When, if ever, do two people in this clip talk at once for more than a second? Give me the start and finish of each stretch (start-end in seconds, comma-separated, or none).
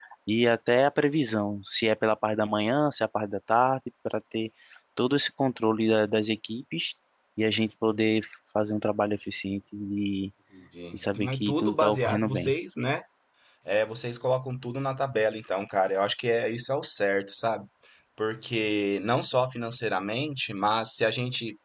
10.9-12.5